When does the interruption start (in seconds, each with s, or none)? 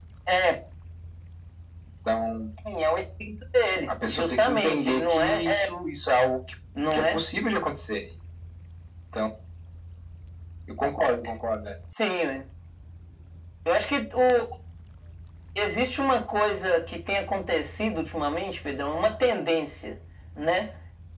4.1 s